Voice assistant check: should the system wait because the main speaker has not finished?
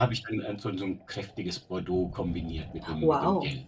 No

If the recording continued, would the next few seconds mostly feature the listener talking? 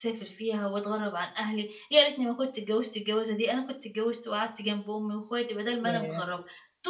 No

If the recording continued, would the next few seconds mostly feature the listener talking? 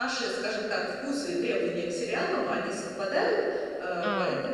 No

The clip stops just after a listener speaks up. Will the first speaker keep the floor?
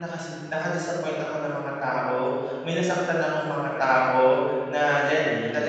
Yes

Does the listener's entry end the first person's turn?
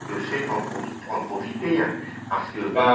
No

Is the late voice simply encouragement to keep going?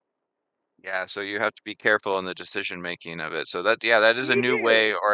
Yes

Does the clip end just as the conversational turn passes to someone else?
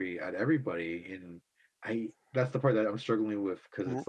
No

